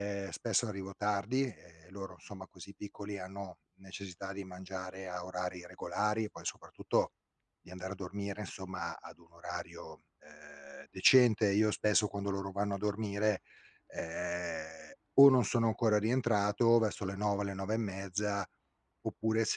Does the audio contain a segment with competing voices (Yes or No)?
No